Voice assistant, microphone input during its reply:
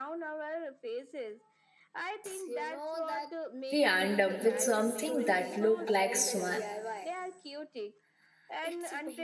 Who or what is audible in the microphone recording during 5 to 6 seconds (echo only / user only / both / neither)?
both